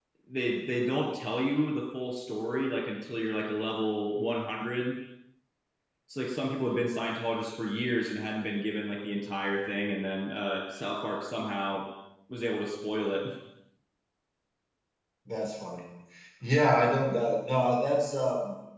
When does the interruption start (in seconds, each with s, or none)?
none